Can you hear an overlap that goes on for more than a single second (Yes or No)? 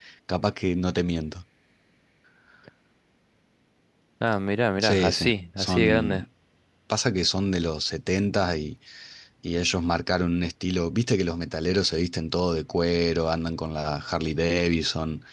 Yes